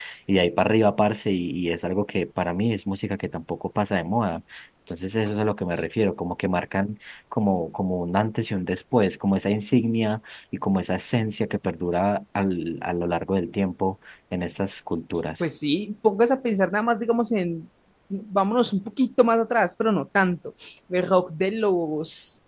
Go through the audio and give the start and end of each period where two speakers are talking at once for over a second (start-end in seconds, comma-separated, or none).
none